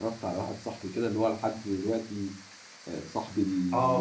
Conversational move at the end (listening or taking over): taking over